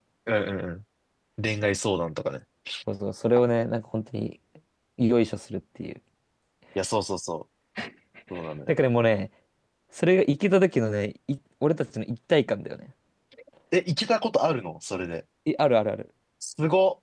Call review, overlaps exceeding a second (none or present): none